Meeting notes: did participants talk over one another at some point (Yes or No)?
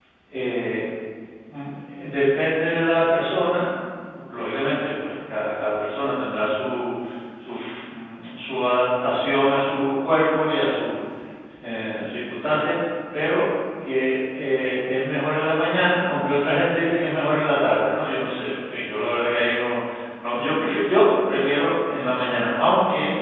No